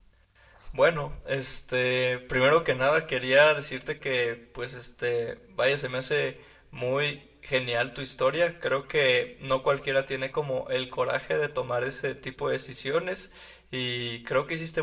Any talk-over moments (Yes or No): No